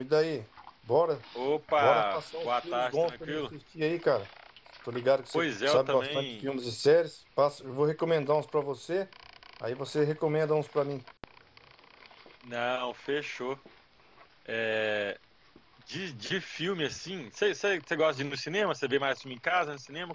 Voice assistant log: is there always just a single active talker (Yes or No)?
No